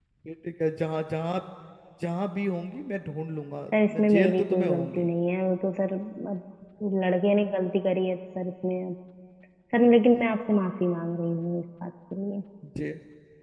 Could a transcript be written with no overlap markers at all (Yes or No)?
No